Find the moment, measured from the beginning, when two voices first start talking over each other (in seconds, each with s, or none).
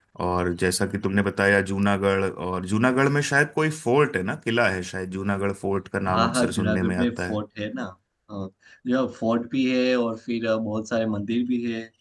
6.0 s